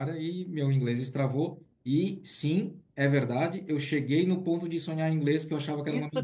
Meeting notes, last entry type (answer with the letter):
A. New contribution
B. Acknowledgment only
A